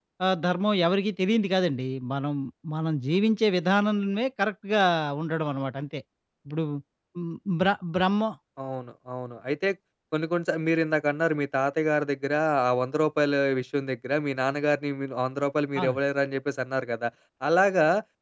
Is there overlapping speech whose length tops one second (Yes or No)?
No